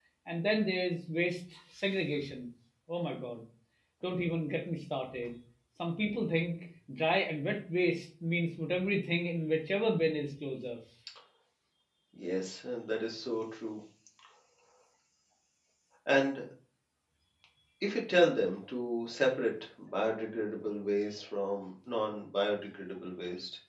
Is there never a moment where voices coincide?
Yes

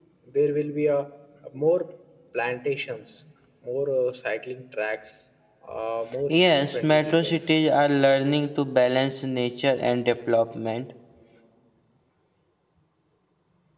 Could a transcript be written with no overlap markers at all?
No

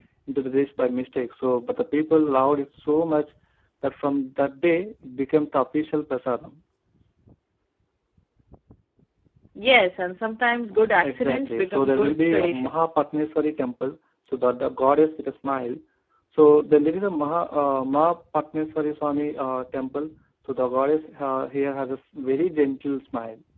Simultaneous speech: Yes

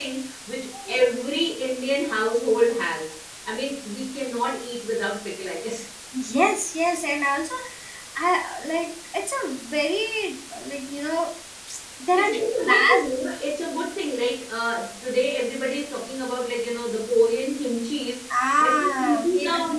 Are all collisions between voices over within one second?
No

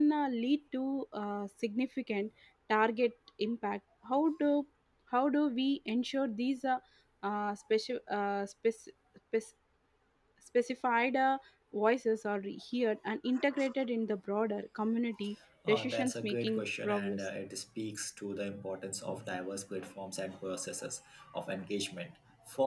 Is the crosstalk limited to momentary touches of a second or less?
No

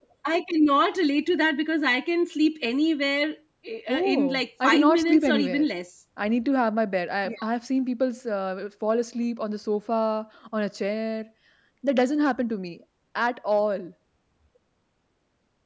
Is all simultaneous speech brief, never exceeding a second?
No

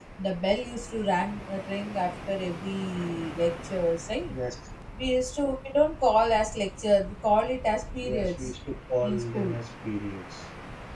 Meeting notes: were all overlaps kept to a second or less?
Yes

